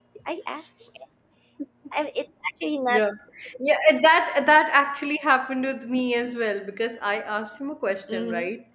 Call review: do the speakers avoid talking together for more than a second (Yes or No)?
Yes